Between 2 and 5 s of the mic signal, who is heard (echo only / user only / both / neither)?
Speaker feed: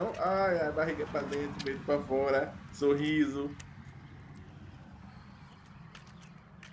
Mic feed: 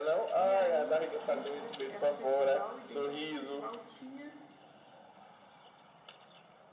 both